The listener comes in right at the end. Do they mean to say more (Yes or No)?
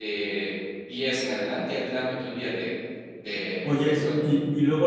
Yes